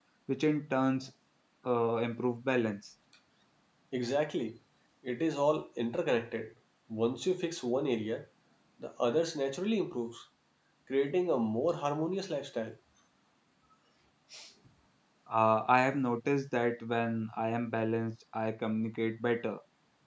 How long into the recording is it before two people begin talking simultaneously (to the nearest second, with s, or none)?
none